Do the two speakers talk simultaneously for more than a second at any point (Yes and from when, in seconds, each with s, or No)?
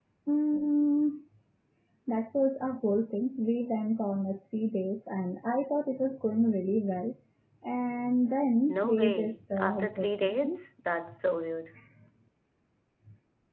Yes, from 8.7 s